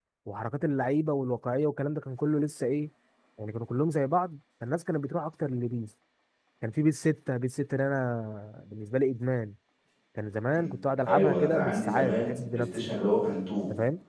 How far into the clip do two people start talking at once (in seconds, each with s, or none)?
11.1 s